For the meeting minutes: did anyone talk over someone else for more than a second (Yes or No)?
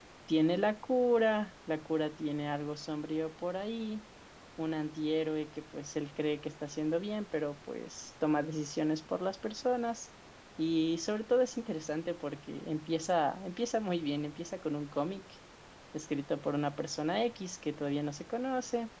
No